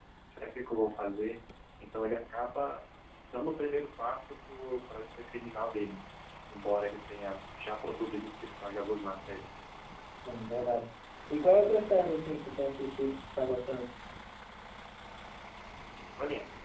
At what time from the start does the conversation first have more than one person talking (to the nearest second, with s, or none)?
none